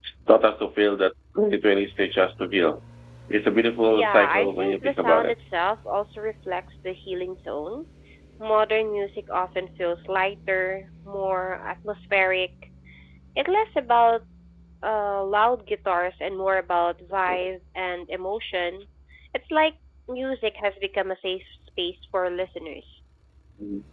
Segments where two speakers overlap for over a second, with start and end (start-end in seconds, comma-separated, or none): 3.9-5.3